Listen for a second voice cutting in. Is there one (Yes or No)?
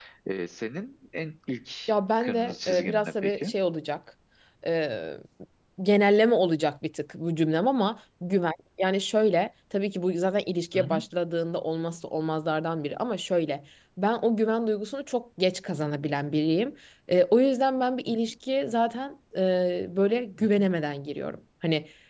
Yes